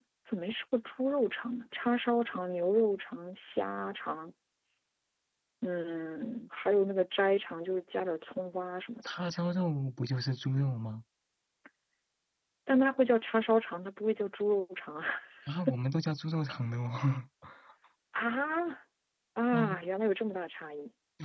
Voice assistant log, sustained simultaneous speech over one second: none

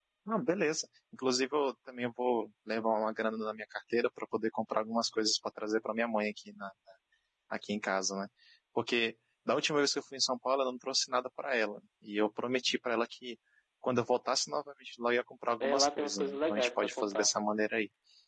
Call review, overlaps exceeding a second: present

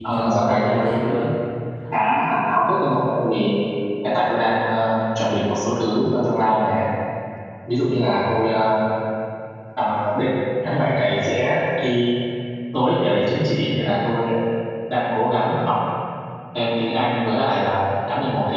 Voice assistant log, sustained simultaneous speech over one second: present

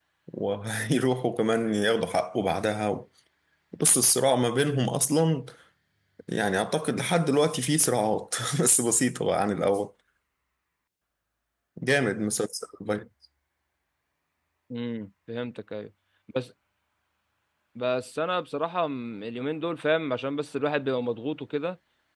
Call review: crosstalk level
none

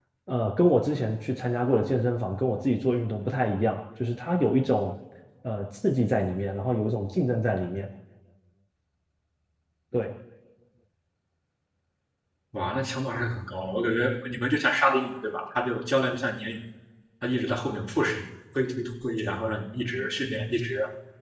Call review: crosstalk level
none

